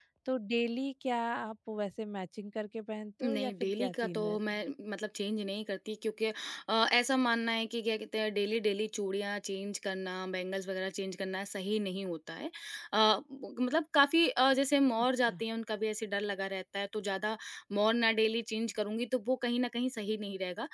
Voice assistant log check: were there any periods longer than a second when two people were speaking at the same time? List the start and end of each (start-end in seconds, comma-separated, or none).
3.2-4.6